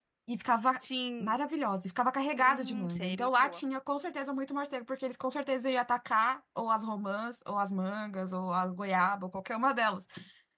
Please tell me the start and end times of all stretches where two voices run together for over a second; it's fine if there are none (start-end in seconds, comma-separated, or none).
2.4-3.6